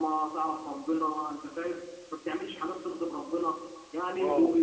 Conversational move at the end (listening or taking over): listening